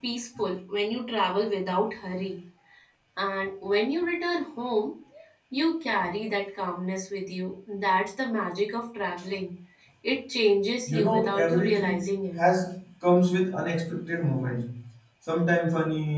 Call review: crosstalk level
present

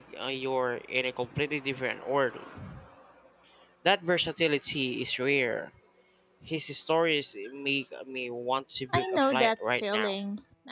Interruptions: present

